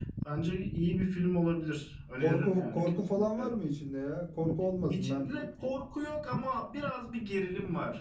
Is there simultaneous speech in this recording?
Yes, from 2.2 s

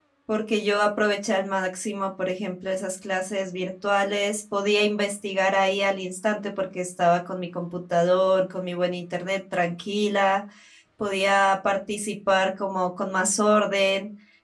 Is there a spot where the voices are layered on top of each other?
No

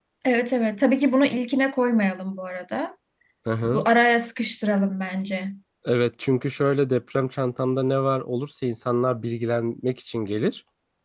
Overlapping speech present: No

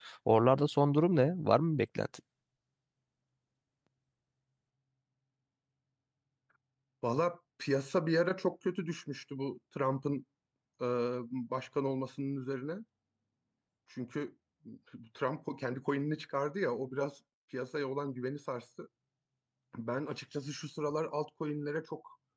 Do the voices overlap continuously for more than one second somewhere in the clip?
No

